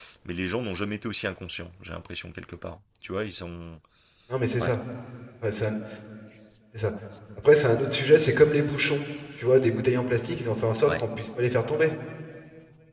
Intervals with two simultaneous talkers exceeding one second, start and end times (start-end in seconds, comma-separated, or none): none